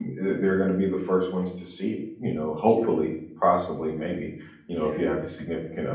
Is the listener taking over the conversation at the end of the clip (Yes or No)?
No